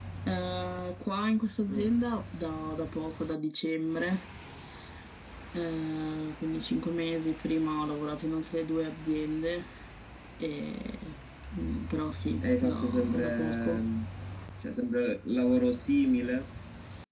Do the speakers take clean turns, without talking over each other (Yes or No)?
No